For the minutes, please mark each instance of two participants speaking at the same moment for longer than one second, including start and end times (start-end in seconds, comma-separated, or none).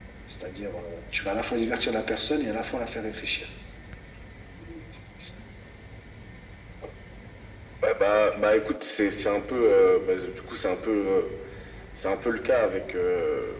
none